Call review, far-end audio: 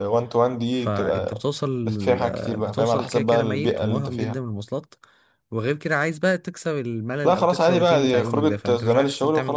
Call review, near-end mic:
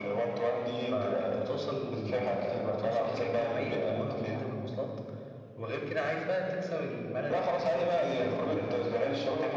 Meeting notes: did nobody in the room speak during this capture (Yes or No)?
Yes